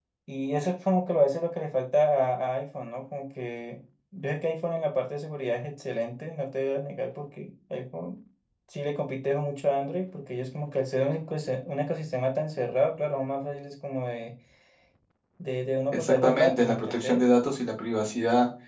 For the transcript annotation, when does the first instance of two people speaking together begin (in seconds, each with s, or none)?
15.9 s